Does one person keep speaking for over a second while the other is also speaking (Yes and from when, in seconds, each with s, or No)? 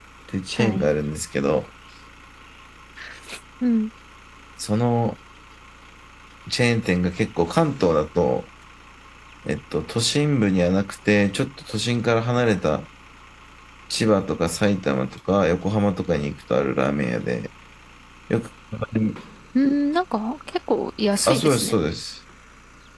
No